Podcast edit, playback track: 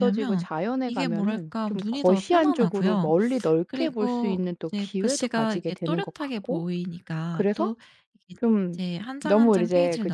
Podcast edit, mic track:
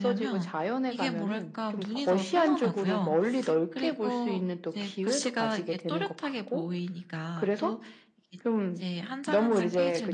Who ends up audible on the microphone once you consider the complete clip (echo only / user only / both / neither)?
echo only